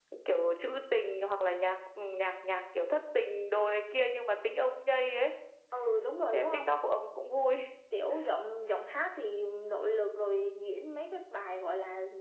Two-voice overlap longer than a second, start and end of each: none

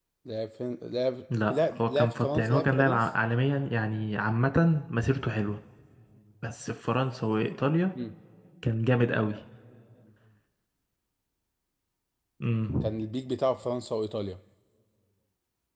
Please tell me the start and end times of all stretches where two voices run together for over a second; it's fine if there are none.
1.4-3.1

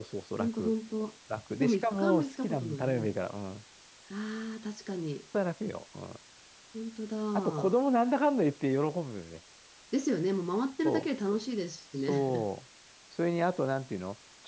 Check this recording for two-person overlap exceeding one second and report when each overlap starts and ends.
1.6-3.1

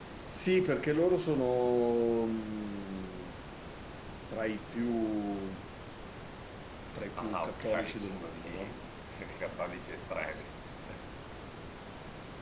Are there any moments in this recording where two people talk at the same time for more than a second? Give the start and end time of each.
7.2-8.8

